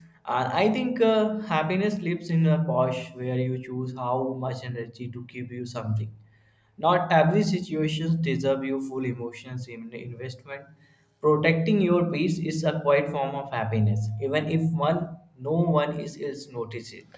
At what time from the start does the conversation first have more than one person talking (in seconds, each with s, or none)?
none